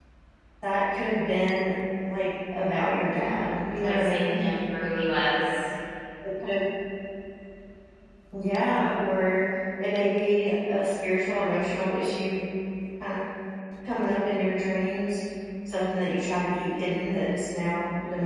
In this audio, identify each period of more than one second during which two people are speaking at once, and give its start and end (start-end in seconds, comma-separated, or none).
3.1-4.4